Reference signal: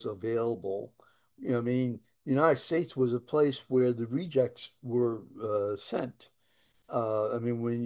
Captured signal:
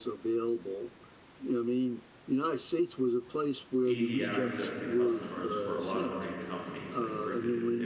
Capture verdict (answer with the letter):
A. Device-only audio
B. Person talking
B